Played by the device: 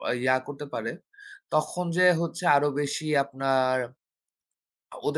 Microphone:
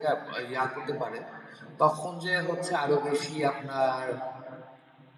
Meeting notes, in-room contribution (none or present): none